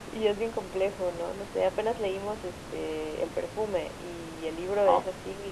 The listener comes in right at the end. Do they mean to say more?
No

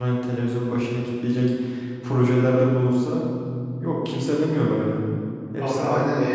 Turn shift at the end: Yes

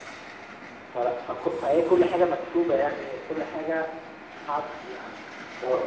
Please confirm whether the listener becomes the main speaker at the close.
Yes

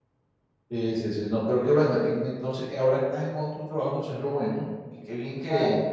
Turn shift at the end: Yes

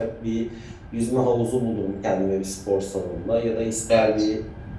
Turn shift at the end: No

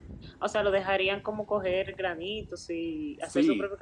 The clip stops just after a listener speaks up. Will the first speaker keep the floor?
No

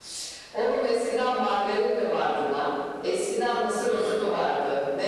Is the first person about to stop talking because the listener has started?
No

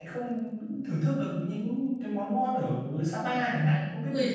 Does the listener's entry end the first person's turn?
Yes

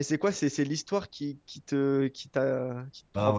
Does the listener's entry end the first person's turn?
Yes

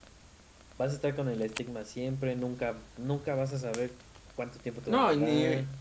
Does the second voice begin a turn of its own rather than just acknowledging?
Yes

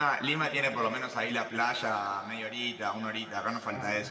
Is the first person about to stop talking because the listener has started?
Yes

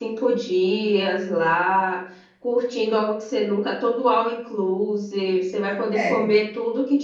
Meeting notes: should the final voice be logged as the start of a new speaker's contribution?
No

